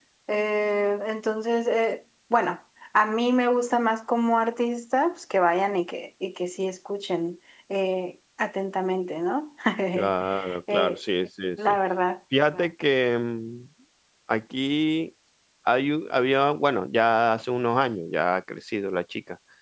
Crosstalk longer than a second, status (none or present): none